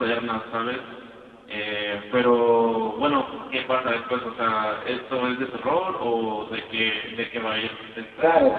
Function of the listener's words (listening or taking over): taking over